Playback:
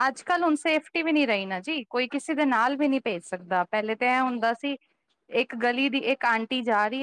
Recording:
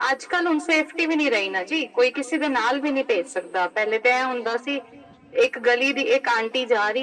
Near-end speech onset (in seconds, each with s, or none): none